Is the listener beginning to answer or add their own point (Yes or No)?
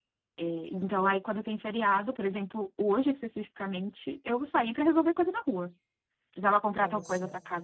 No